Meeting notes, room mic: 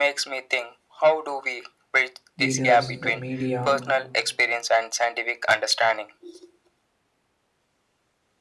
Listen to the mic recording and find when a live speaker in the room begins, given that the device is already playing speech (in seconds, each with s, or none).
2.4 s